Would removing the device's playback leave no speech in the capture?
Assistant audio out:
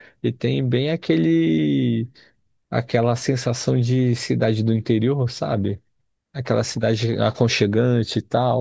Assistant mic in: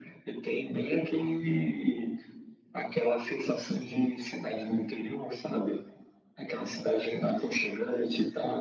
Yes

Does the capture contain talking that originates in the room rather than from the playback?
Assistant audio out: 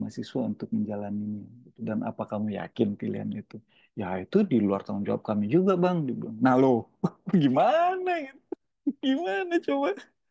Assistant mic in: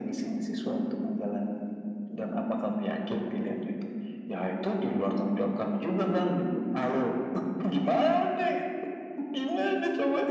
No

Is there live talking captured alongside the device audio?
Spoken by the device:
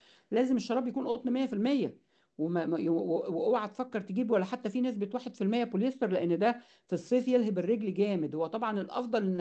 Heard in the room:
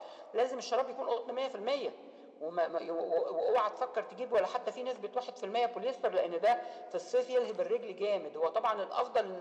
No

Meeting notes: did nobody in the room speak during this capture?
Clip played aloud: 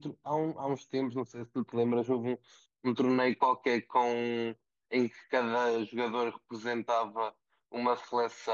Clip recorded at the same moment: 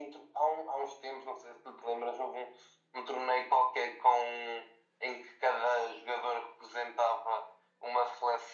Yes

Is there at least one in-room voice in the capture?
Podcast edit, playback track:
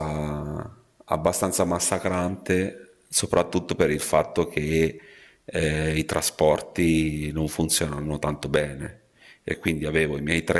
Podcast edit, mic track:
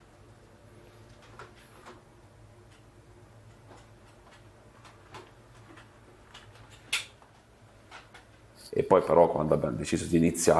Yes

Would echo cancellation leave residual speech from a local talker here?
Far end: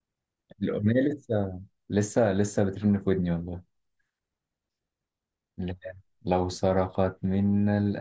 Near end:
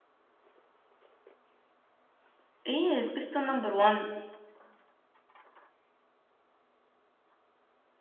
Yes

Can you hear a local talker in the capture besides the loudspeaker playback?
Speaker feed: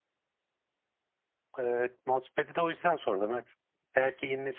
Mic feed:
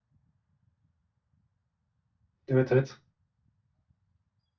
Yes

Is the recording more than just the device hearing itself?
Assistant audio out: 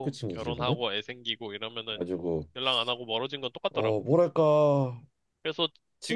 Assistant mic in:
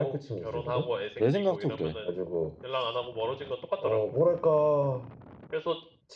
Yes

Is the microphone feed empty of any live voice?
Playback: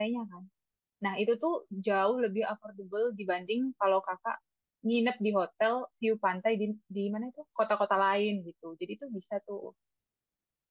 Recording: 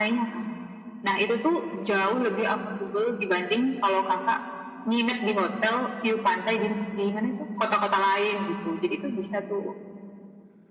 Yes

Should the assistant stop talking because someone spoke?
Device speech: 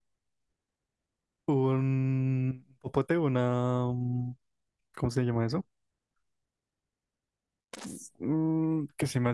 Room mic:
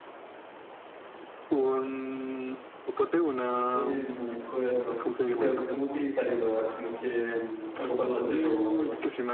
Yes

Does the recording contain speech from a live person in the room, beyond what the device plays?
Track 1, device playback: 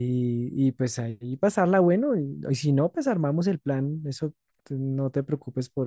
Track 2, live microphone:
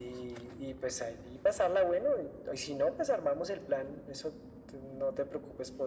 No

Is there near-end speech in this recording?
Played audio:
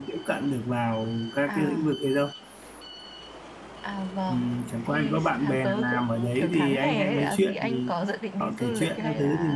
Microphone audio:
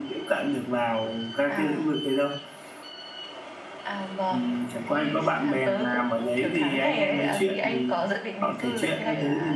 No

